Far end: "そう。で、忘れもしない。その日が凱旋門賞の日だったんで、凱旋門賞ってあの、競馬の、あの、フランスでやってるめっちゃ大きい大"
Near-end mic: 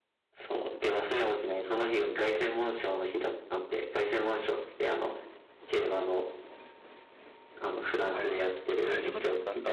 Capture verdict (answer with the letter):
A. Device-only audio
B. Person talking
B